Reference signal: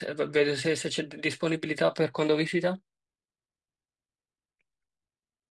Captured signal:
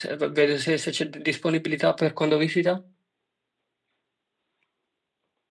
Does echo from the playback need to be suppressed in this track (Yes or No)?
Yes